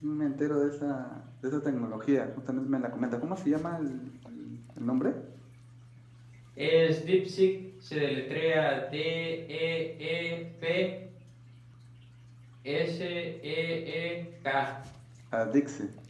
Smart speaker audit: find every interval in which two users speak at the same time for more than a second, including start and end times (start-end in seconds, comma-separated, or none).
none